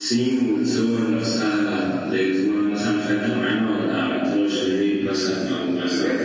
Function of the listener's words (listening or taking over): taking over